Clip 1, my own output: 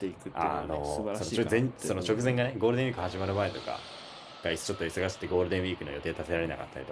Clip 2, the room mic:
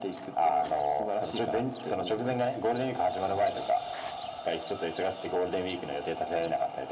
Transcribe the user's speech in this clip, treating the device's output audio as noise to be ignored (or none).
none